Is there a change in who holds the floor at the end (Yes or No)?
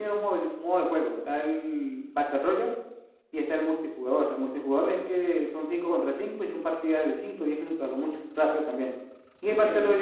No